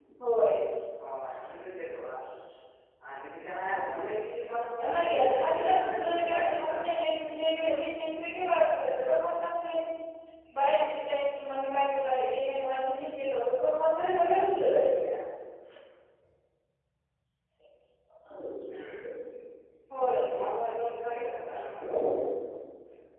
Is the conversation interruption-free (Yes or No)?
No